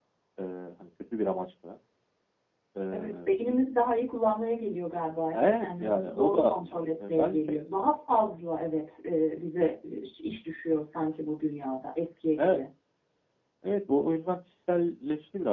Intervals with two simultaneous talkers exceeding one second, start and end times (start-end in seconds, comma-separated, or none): 5.3-6.5